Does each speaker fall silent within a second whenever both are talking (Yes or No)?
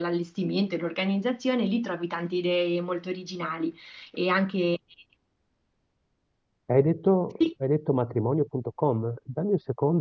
Yes